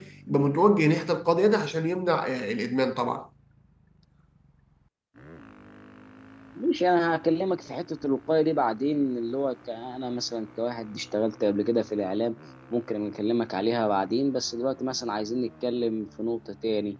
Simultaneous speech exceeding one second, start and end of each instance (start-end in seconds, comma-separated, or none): none